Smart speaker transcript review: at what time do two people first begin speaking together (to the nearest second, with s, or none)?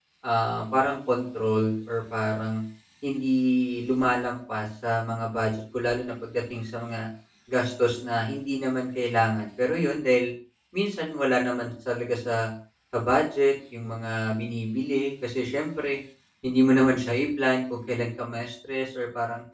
none